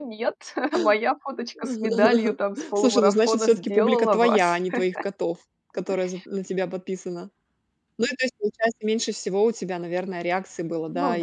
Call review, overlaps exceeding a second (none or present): present